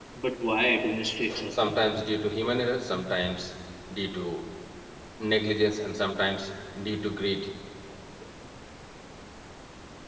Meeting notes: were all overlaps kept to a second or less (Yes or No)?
Yes